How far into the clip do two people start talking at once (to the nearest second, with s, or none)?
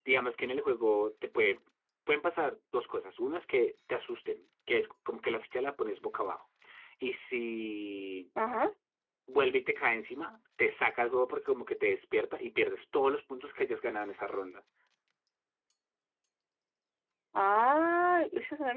none